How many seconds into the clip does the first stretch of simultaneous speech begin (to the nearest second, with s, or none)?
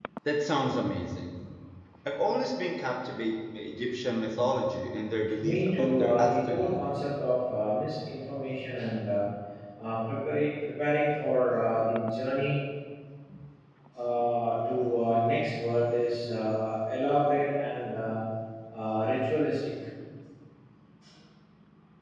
5 s